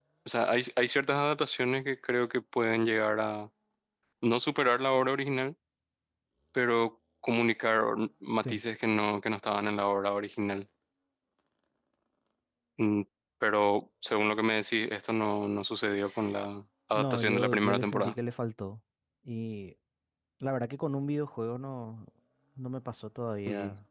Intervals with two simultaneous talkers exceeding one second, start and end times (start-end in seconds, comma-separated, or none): 16.9-18.1